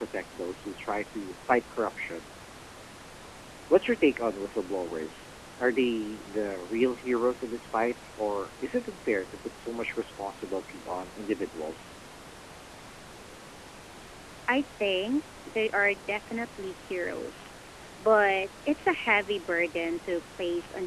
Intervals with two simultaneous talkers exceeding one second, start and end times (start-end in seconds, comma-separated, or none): none